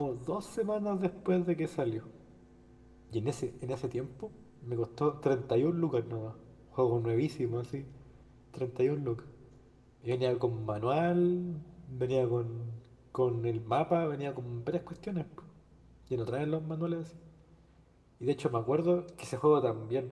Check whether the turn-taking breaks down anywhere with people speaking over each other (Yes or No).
No